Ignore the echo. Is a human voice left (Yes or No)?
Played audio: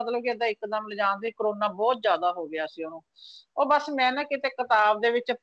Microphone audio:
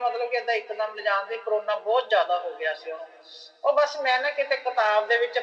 No